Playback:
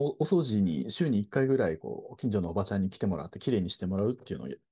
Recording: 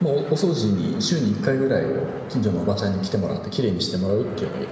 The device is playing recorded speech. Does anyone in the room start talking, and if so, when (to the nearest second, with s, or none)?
none